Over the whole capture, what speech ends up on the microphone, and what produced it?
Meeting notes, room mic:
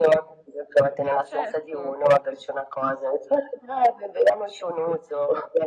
both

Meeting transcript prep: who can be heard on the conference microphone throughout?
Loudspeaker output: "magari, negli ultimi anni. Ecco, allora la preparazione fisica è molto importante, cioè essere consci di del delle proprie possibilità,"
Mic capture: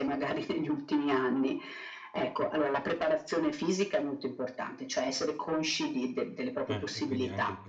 both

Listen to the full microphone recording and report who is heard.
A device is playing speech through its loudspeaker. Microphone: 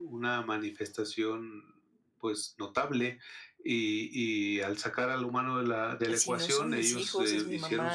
both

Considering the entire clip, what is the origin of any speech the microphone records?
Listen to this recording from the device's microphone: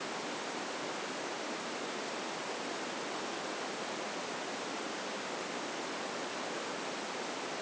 neither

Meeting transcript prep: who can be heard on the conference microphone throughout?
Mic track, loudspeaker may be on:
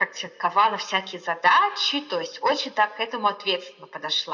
echo only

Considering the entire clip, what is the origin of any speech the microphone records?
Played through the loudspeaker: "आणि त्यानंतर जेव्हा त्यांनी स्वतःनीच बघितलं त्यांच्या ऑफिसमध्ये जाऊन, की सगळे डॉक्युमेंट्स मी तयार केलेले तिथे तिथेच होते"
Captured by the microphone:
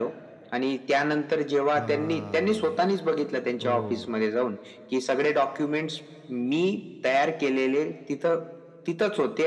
both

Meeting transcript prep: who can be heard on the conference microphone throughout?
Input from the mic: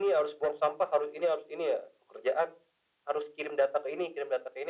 echo only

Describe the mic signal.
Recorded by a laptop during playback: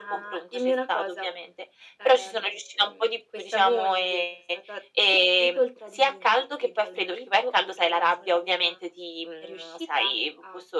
echo only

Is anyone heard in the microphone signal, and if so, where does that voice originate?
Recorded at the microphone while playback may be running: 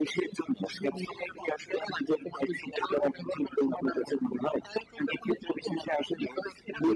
echo only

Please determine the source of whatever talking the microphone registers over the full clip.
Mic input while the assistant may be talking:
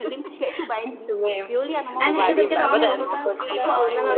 both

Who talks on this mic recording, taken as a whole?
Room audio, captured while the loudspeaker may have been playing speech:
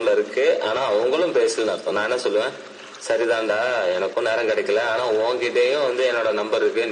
echo only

